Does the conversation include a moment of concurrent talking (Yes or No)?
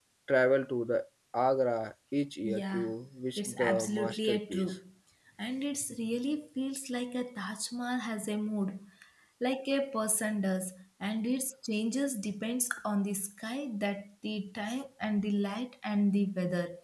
Yes